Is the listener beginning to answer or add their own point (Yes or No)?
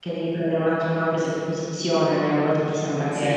No